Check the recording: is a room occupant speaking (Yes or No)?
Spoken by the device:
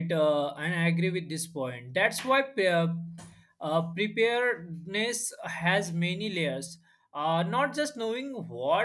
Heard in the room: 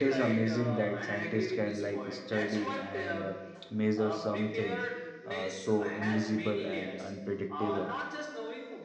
Yes